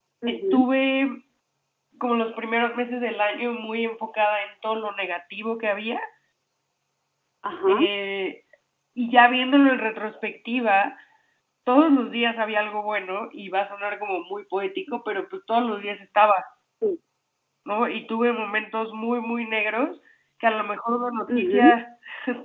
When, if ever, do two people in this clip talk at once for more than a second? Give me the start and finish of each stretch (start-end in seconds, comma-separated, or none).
none